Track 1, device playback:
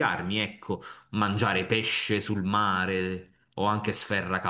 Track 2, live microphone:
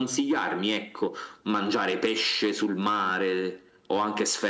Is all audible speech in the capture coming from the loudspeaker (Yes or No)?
Yes